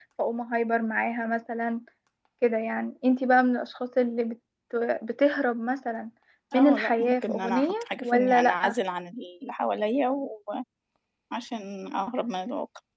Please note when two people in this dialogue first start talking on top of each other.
7 s

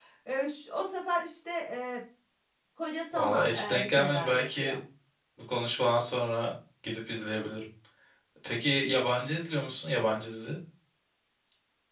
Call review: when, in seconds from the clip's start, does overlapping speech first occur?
3 s

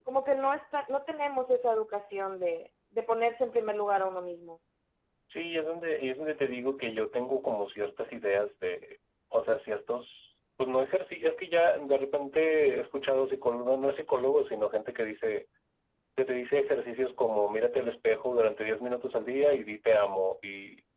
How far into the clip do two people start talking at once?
none

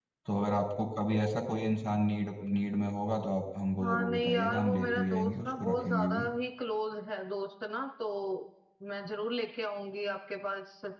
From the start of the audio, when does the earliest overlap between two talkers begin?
4 s

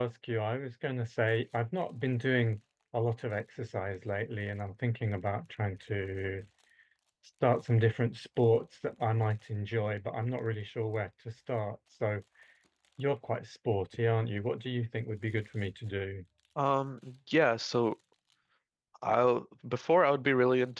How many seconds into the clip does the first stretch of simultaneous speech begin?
none

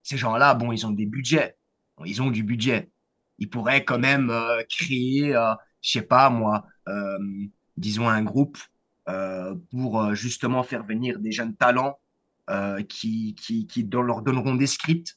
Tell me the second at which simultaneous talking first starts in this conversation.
none

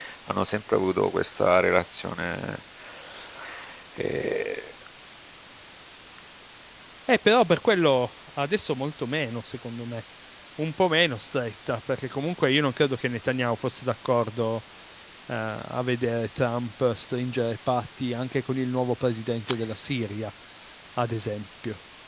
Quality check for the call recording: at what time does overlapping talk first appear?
none

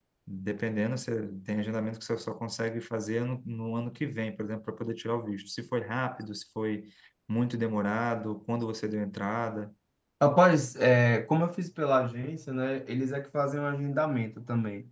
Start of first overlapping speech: none

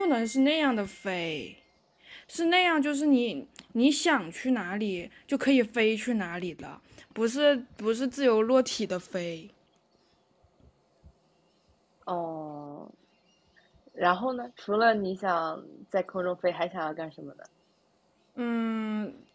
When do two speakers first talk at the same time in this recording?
none

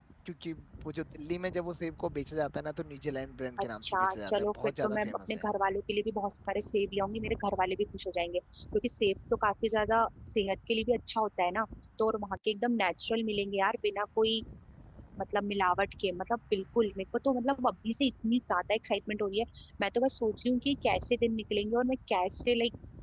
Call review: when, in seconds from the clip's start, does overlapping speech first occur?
4 s

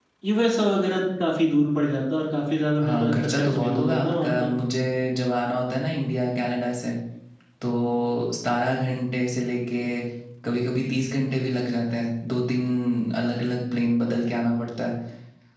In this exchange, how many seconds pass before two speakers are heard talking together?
3 s

